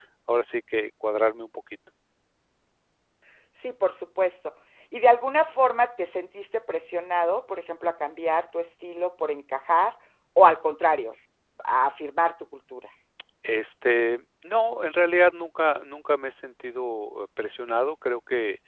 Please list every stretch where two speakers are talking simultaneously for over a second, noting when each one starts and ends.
none

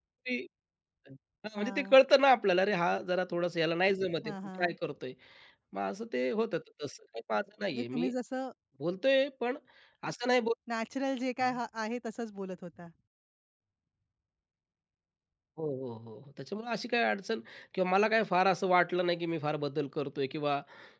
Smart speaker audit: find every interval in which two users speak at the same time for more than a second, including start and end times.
none

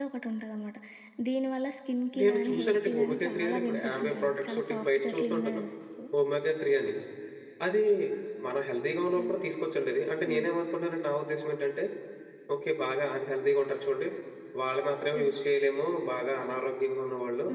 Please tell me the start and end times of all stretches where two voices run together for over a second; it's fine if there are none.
2.2-5.6

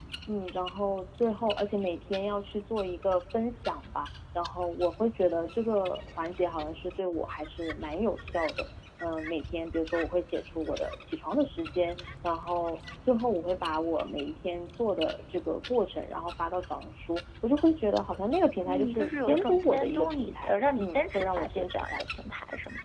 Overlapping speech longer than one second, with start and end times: 18.6-22.0

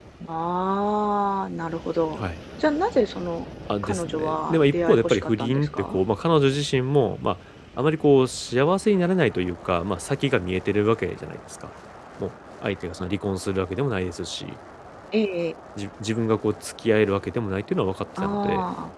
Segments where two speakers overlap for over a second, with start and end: 3.8-6.0

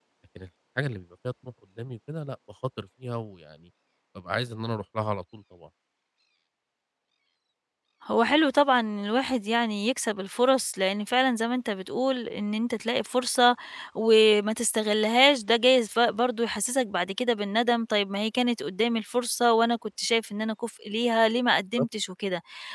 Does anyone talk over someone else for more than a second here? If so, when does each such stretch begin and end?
none

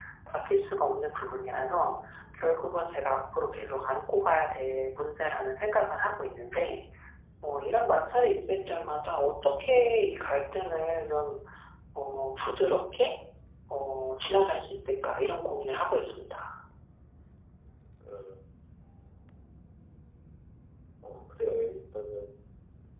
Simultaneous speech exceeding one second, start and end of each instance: none

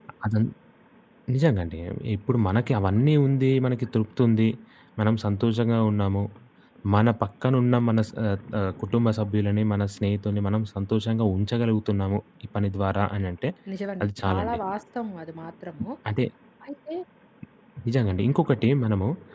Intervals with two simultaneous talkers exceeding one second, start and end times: none

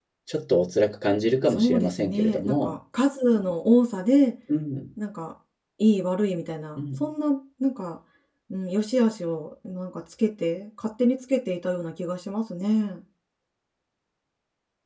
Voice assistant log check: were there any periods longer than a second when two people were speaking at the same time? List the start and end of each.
1.5-2.8

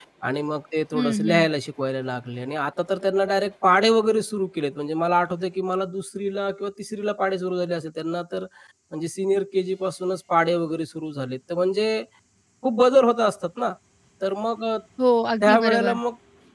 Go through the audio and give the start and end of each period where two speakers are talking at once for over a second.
none

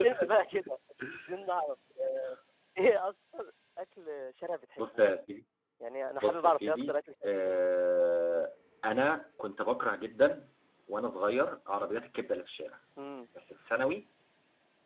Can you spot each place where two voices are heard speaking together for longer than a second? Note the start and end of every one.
6.2-7.5

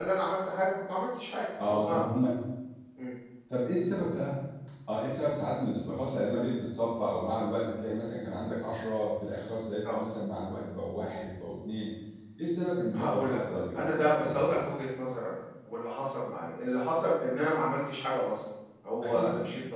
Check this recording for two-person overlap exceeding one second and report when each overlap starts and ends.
12.9-14.6

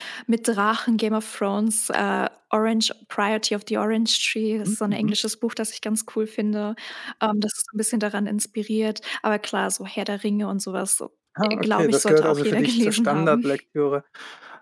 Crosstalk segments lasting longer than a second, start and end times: 11.4-13.5

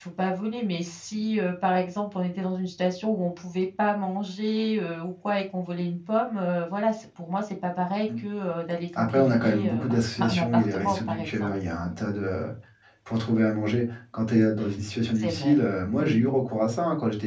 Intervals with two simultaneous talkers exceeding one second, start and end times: 9.0-11.5

